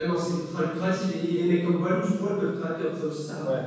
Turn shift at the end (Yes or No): Yes